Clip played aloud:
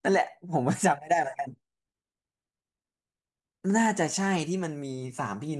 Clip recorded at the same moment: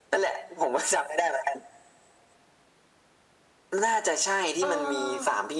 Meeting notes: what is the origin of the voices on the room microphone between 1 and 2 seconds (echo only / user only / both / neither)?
echo only